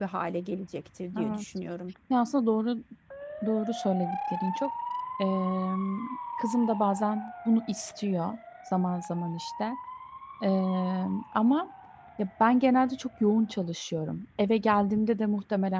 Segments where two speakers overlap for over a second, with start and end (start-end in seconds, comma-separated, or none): none